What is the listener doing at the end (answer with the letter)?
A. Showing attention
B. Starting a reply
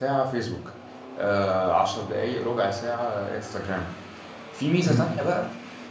A